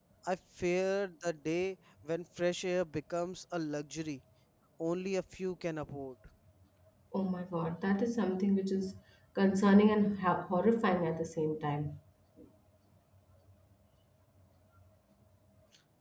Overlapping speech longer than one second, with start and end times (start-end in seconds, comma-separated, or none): none